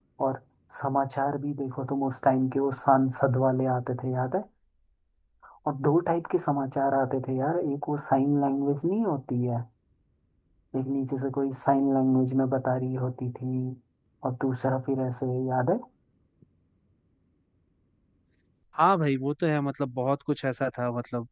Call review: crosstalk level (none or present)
none